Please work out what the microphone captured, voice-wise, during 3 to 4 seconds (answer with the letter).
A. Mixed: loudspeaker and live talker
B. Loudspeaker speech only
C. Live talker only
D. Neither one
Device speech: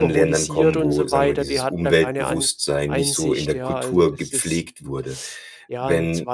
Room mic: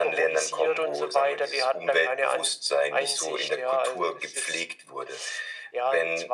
B